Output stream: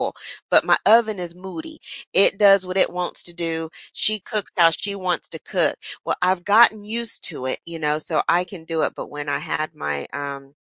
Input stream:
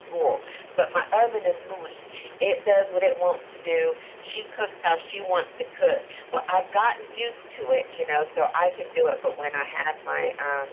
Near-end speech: none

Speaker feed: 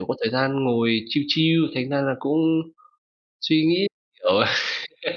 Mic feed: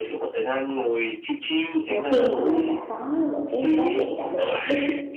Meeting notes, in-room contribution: present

